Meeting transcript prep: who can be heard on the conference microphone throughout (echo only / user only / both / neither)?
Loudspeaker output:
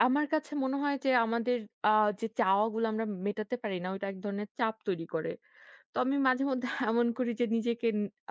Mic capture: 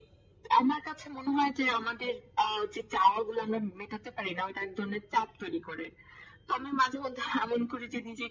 echo only